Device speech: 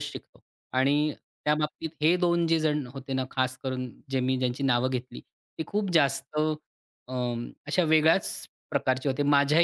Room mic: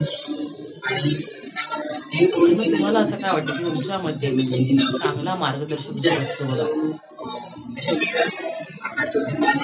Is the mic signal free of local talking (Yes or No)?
No